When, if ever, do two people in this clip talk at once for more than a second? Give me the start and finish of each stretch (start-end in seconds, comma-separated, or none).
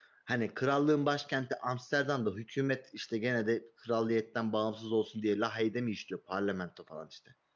none